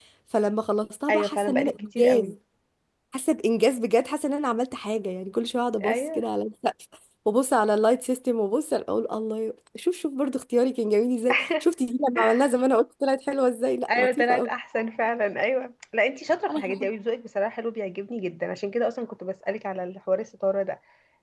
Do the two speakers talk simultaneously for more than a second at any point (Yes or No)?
Yes